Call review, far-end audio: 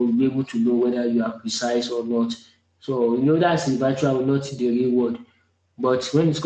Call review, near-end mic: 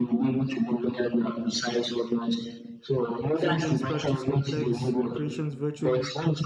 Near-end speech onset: 3.3 s

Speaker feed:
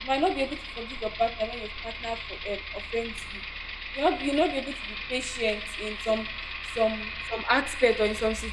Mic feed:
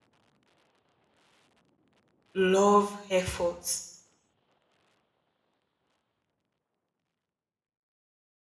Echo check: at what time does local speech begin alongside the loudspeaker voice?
2.3 s

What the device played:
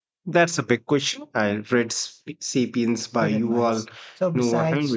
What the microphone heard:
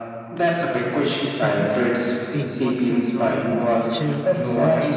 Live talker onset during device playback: 1.4 s

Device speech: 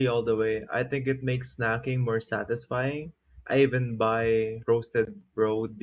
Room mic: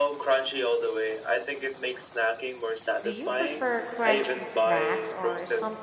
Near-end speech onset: 3.0 s

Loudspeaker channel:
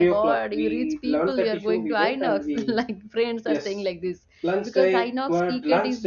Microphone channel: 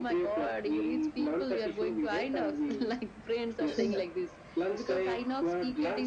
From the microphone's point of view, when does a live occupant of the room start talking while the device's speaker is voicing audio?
3.6 s

